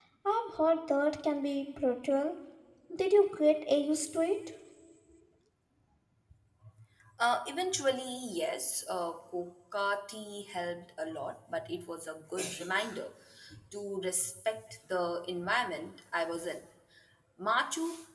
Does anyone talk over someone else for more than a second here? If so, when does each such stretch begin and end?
none

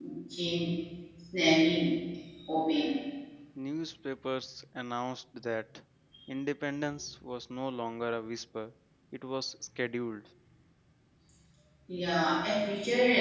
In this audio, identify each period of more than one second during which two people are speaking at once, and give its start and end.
none

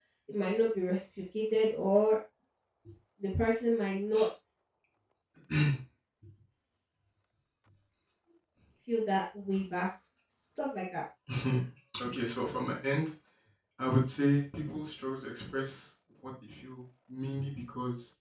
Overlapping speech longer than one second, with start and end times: none

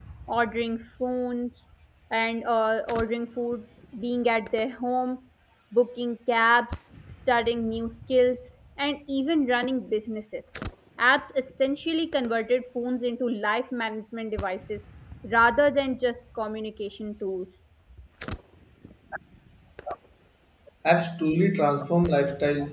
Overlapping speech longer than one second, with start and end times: none

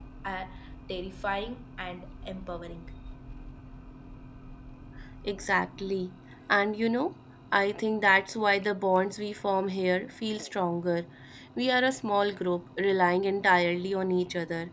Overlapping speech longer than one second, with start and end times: none

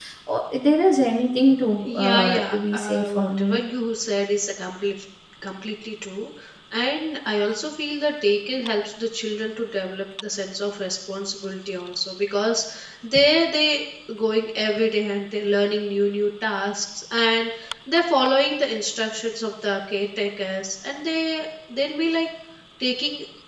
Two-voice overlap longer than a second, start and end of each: 1.8-3.6

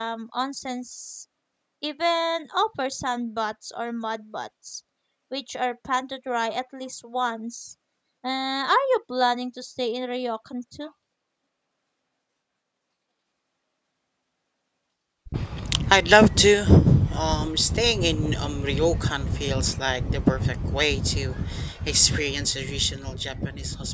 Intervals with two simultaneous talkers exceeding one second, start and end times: none

